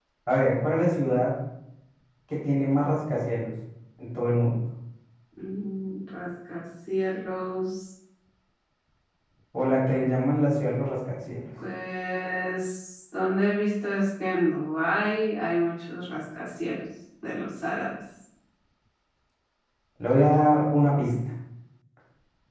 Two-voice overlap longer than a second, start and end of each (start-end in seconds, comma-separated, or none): none